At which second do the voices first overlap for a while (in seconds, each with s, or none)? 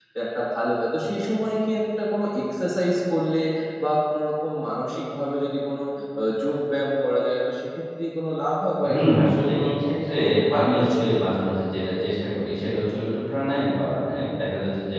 8.8 s